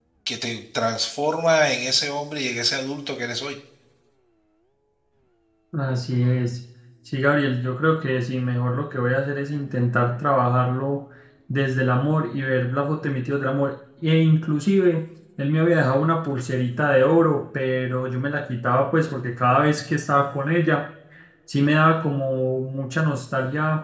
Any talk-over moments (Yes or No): No